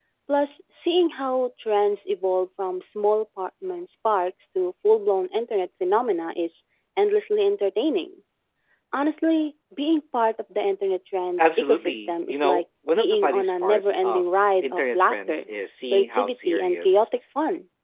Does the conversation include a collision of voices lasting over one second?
Yes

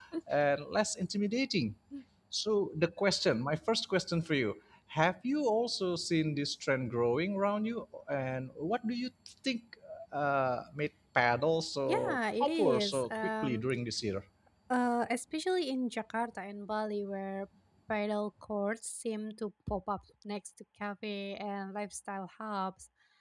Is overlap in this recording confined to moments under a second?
No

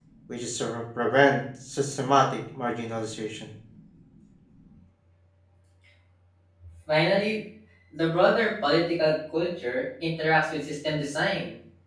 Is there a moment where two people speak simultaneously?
No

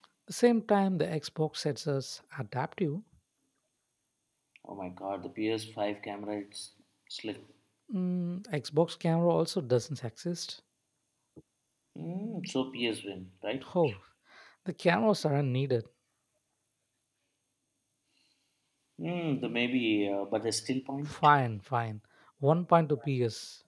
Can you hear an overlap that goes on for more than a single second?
No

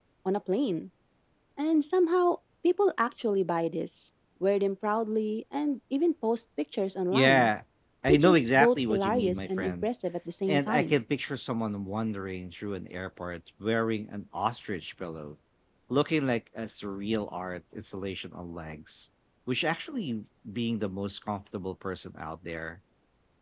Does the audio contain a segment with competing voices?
Yes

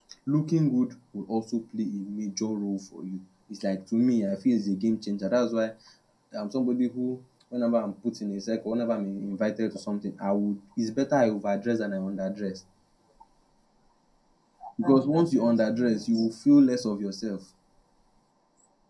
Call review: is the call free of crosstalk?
No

